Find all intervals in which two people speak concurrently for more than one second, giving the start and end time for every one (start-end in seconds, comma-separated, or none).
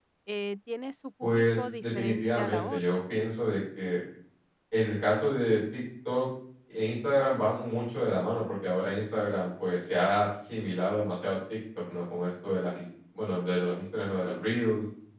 1.2-3.0